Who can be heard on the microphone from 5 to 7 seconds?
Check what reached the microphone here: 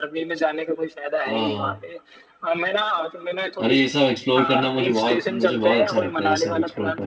both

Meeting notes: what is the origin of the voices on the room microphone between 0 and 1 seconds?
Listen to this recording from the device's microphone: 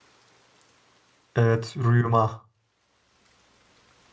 neither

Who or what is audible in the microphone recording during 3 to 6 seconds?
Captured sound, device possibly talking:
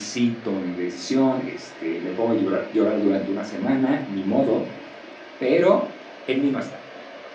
echo only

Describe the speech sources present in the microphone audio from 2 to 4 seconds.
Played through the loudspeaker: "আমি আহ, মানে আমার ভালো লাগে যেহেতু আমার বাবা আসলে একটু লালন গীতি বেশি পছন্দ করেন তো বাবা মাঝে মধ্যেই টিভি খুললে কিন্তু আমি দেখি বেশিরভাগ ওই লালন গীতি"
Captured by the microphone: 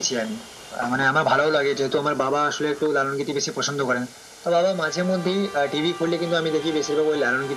echo only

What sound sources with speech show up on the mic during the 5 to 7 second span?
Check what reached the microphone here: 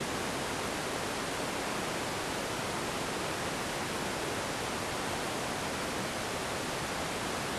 neither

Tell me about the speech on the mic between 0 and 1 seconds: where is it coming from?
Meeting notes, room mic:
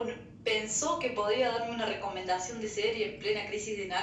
echo only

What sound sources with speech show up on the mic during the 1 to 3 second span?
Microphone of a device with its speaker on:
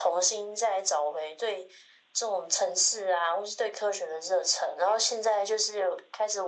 echo only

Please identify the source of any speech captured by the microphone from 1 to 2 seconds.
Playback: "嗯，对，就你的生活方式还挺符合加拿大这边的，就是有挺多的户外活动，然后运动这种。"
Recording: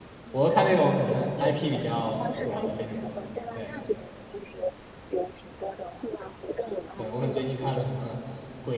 both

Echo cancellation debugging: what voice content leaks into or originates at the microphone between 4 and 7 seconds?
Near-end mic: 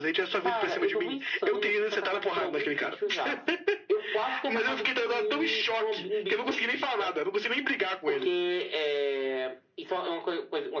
echo only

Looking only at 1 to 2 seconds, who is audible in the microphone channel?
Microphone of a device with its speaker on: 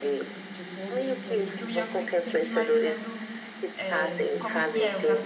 both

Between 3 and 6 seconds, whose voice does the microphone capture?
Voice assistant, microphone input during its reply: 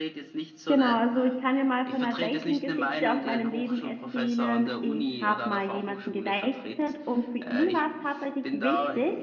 both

